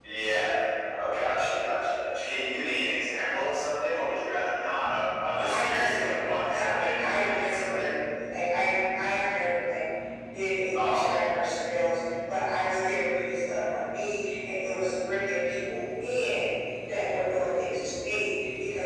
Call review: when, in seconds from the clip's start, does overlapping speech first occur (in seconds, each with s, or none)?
5.3 s